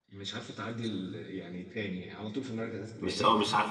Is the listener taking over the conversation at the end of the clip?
Yes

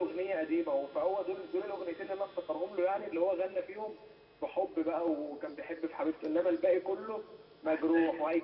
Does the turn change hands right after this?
No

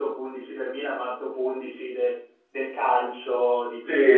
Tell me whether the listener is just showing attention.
No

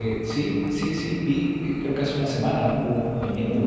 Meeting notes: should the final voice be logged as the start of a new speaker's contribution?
No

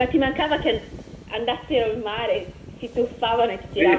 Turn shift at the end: Yes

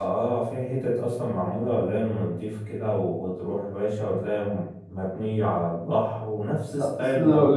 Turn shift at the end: Yes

